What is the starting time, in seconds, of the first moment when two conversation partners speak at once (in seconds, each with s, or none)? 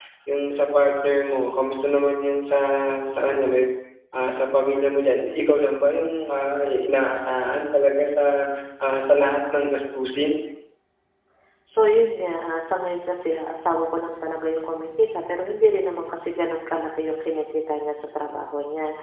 none